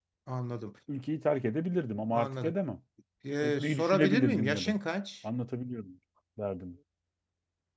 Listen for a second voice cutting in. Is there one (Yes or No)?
Yes